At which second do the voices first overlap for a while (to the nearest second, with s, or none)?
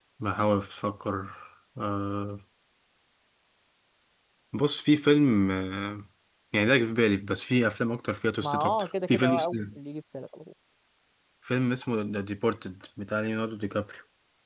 8 s